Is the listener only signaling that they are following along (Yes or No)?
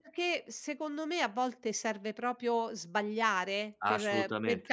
Yes